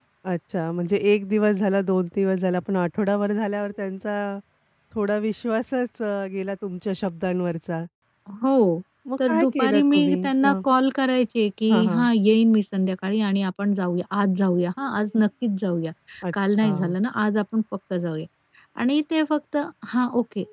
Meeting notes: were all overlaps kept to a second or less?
No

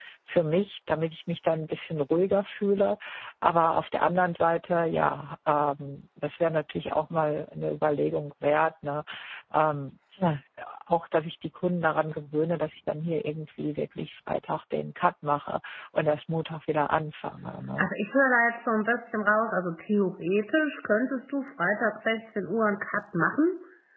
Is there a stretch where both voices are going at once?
No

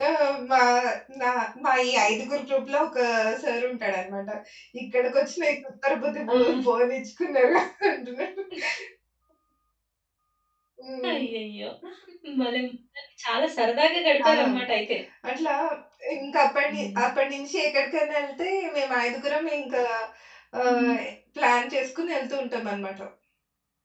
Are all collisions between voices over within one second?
Yes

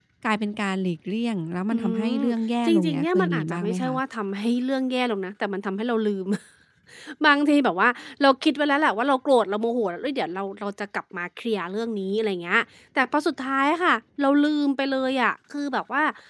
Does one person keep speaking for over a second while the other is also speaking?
Yes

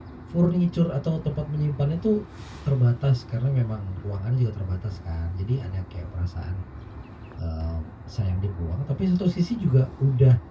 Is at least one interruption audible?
No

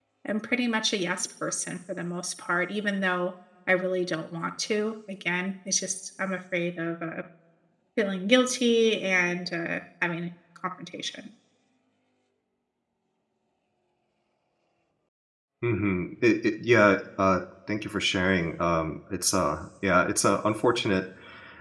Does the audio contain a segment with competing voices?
No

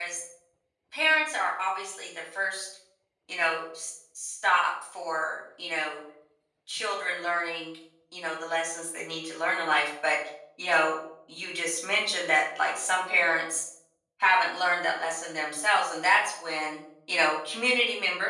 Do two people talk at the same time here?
No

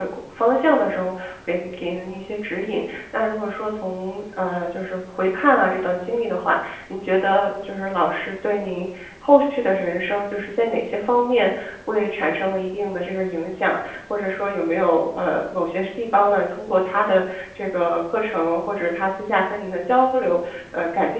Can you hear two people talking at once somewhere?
No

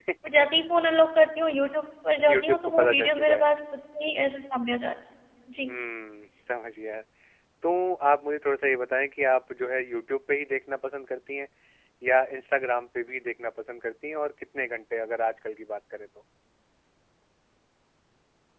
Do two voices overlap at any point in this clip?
Yes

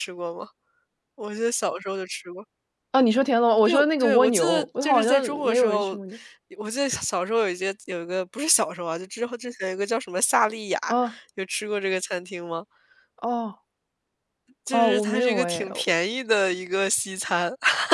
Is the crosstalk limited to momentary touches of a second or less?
No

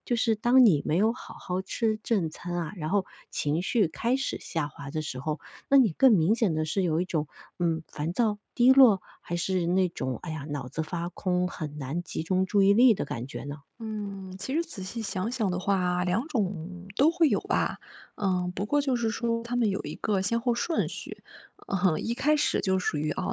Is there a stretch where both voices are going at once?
No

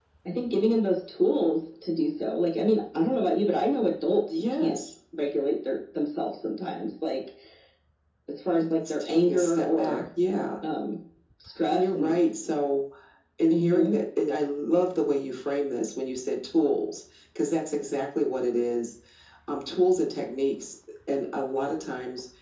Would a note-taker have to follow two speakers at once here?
Yes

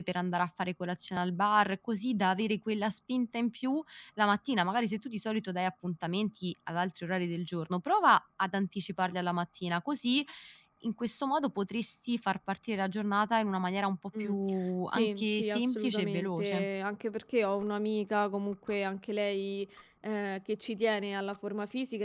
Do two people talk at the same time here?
Yes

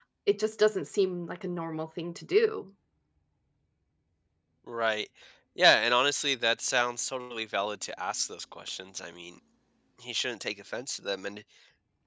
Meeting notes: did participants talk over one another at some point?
No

